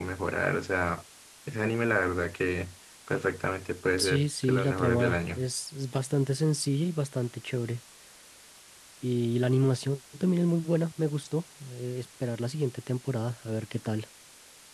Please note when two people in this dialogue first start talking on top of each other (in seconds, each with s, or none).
4.0 s